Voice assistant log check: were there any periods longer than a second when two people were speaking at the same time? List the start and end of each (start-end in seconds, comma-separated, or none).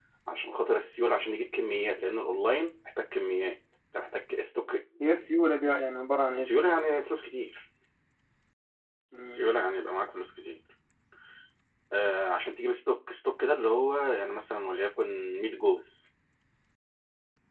none